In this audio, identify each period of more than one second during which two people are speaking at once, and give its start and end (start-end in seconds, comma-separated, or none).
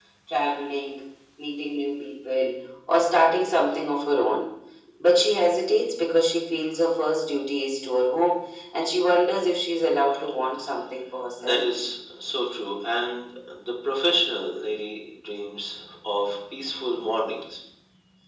none